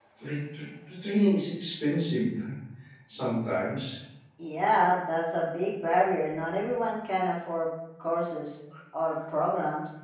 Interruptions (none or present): none